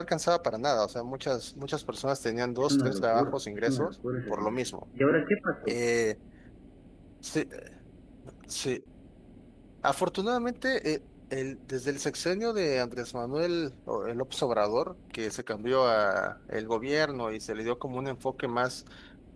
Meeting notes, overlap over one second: present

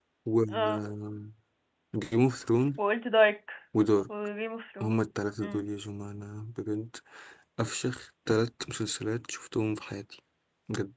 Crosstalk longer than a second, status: none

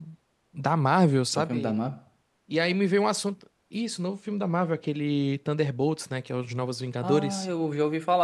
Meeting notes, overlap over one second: none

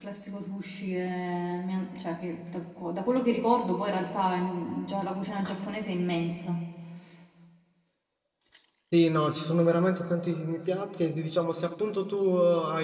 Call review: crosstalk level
none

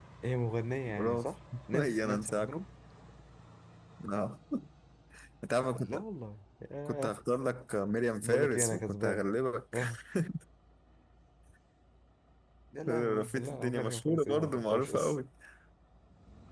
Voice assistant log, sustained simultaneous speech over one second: present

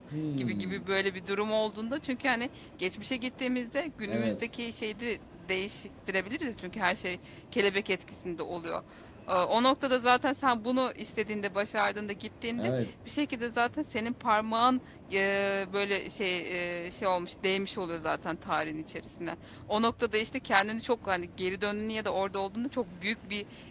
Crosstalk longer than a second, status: none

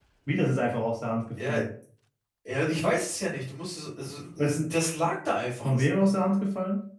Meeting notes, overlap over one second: none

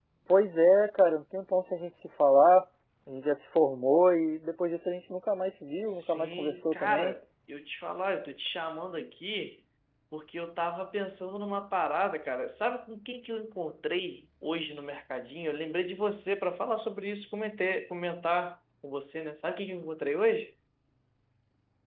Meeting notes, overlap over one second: present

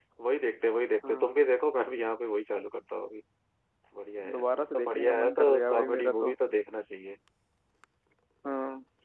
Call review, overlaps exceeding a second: present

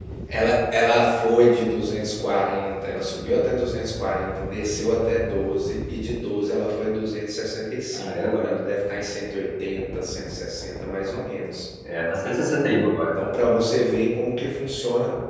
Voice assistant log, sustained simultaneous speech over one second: none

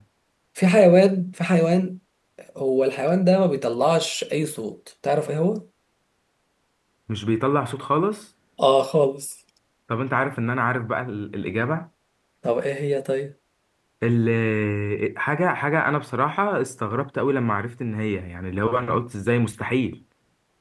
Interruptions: none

